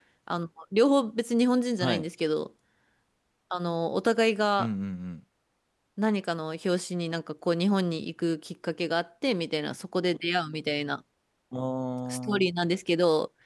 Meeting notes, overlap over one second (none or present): none